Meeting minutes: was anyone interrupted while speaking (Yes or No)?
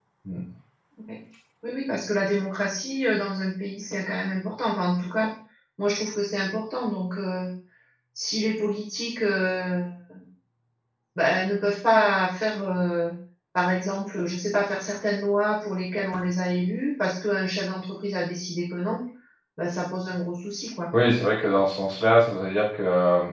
No